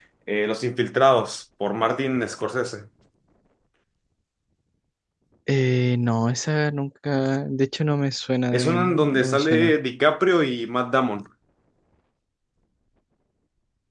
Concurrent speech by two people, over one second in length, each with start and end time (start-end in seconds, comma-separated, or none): 8.5-9.7